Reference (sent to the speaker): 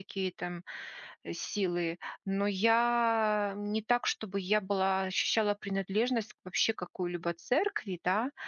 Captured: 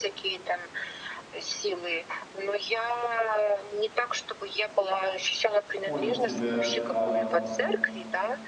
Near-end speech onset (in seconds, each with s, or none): 5.8 s